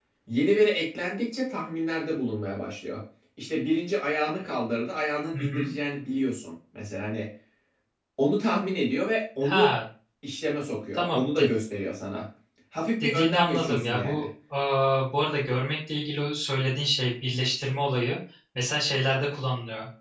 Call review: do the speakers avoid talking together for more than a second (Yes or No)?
No